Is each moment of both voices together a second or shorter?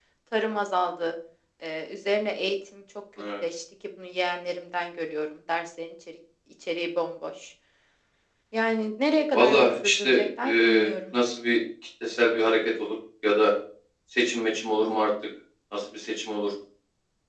No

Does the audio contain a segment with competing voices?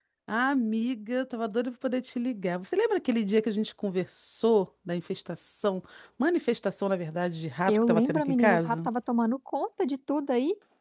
Yes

